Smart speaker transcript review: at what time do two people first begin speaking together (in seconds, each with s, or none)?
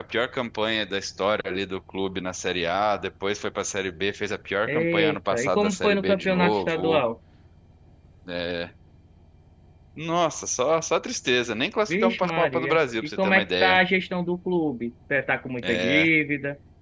4.7 s